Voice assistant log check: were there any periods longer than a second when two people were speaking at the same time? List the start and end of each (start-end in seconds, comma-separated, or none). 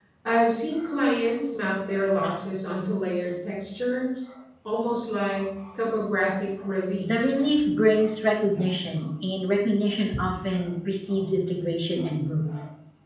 none